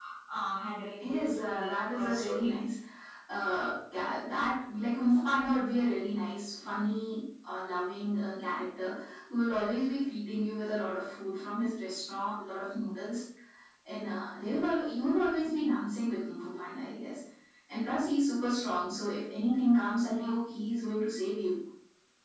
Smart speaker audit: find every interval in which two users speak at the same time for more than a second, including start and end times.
1.0-2.5

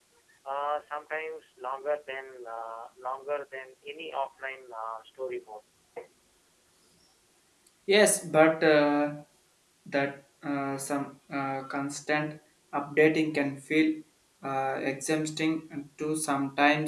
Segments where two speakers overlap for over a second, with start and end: none

